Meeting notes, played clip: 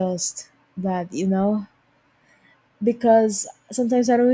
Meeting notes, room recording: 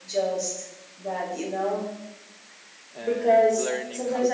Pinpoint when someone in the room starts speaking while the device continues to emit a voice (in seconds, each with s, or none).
2.9 s